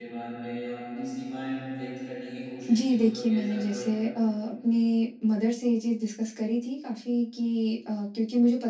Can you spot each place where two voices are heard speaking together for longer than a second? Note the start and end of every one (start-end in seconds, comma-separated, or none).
2.7-3.9